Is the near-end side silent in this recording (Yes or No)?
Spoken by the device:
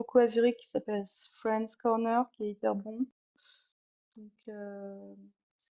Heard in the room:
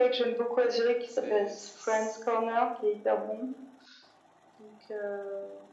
No